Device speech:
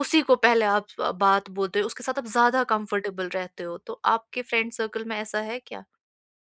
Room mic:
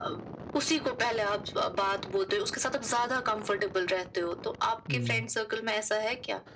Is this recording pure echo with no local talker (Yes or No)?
No